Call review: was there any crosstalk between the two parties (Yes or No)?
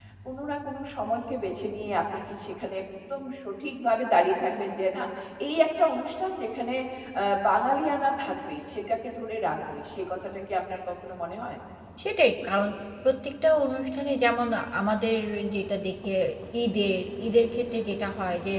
No